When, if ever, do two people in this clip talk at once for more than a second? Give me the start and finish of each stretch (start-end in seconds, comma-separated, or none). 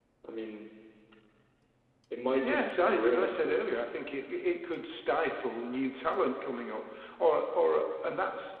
2.4-3.8